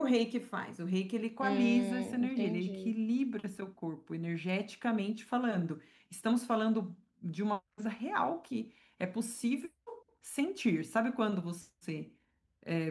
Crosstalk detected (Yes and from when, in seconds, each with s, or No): Yes, from 1.4 s